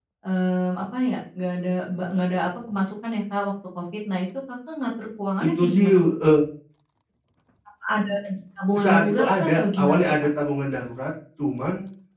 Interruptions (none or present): present